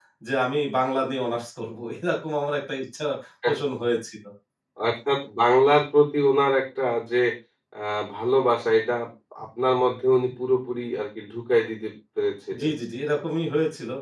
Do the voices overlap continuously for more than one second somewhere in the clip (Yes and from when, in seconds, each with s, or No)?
No